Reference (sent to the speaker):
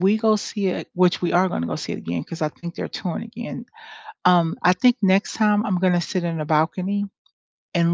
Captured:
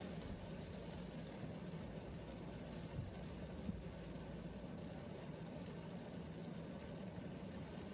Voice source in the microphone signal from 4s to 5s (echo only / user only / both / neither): neither